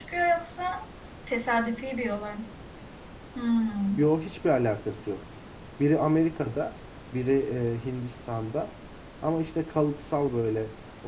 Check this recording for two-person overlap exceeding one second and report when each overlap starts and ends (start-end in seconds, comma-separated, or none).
none